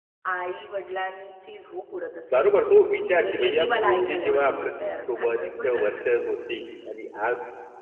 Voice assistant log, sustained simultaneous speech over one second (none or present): present